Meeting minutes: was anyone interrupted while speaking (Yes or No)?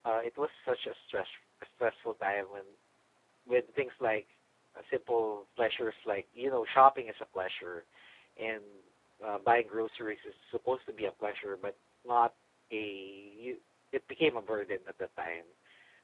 No